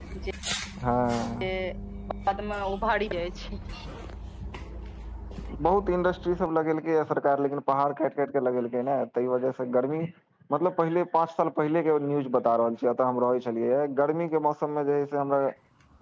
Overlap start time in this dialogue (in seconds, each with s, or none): none